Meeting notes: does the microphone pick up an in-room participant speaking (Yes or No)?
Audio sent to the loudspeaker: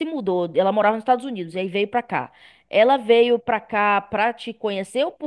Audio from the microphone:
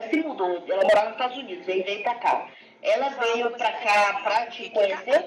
Yes